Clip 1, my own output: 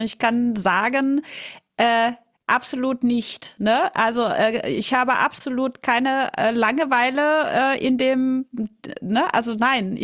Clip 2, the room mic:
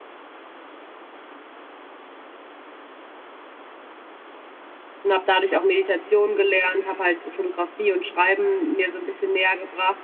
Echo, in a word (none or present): none